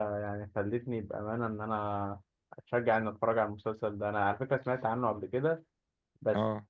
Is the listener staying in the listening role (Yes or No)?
Yes